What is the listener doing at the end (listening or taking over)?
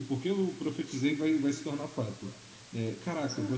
listening